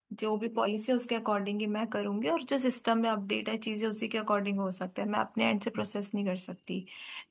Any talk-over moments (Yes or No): No